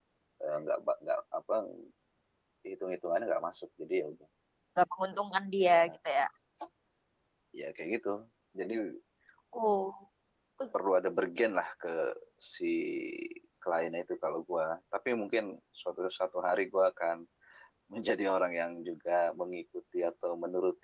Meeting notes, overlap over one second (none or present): none